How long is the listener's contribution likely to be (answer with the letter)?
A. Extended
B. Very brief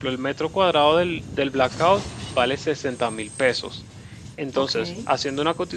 B